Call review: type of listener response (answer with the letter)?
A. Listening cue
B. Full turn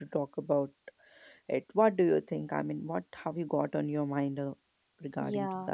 B